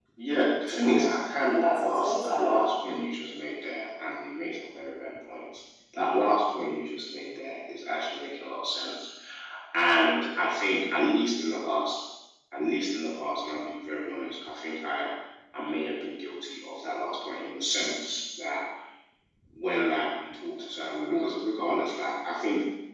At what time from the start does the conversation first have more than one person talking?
0.7 s

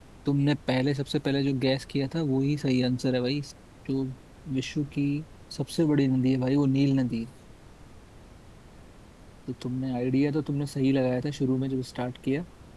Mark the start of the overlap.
none

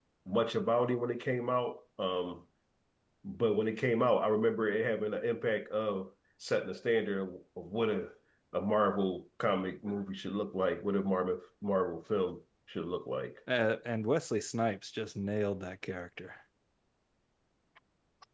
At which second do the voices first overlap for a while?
none

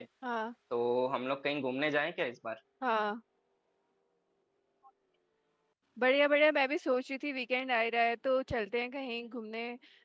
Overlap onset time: none

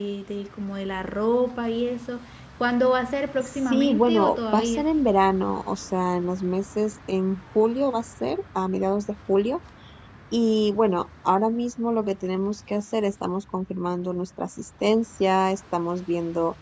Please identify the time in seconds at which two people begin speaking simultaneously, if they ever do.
3.4 s

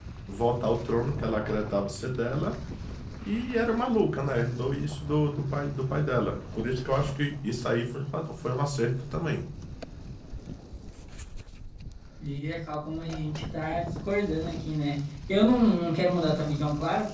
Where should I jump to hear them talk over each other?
none

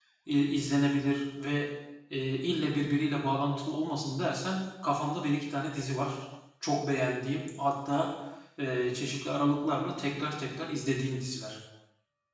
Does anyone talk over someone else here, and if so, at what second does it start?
none

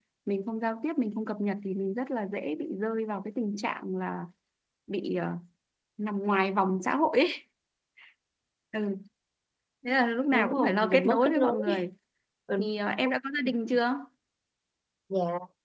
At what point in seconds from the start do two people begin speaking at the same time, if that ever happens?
10.3 s

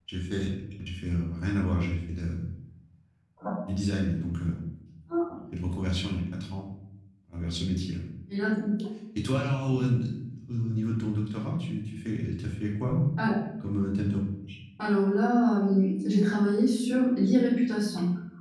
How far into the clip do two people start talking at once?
none

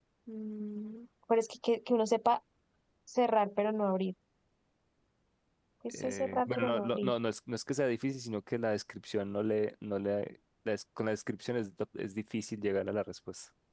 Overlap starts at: 5.9 s

